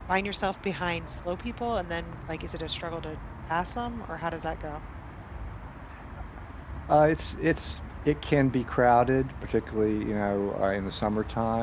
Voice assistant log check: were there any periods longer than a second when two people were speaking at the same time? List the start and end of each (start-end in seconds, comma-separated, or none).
none